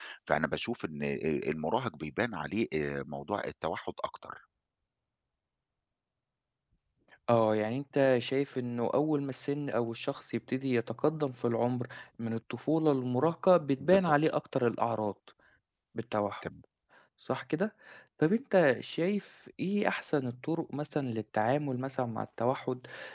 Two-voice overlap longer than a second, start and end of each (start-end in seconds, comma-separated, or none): none